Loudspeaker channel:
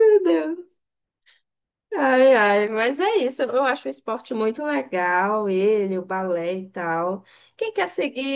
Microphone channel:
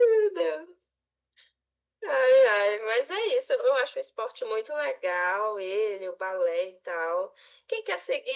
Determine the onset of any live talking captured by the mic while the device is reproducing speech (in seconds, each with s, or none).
none